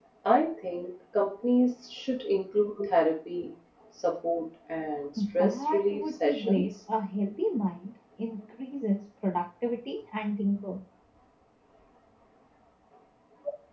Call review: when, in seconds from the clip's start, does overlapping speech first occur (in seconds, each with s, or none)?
5.2 s